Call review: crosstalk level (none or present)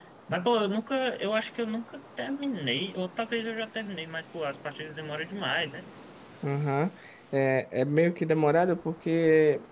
none